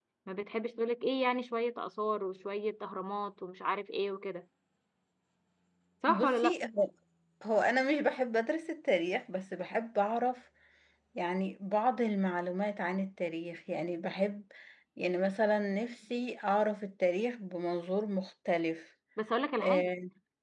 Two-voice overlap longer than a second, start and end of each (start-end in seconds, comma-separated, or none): none